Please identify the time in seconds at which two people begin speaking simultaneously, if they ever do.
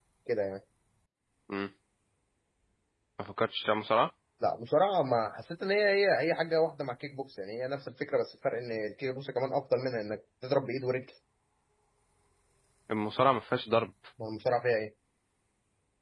none

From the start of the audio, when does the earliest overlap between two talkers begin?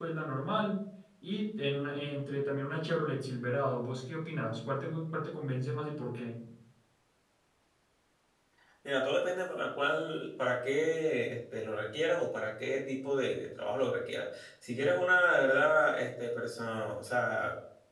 none

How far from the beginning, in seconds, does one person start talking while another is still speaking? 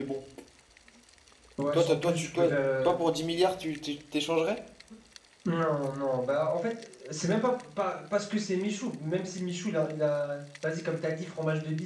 1.7 s

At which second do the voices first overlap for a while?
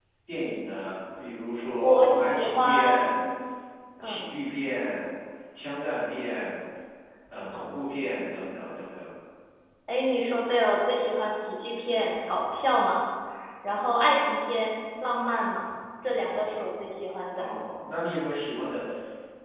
1.8 s

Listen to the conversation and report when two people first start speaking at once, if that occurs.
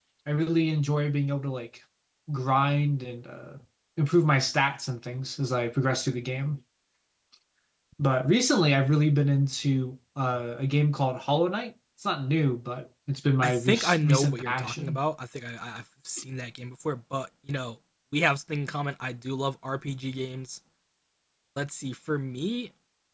13.4 s

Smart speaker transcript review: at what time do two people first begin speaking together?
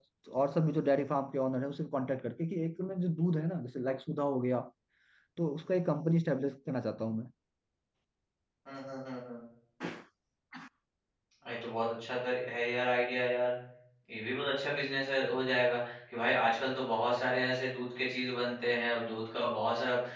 none

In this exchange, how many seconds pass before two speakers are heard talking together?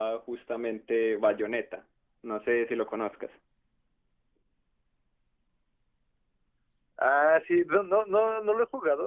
none

